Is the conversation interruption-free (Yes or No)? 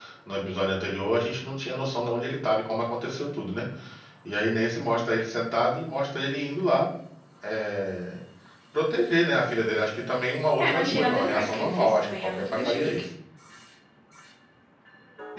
No